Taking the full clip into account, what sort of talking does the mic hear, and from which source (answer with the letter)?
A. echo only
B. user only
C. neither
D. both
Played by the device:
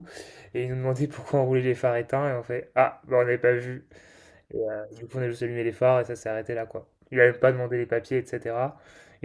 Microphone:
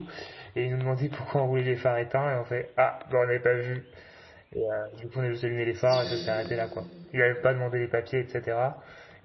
D